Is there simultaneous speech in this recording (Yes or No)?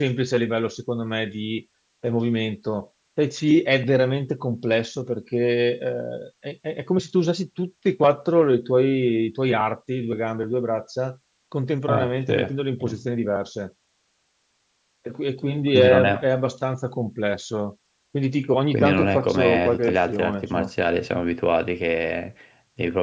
Yes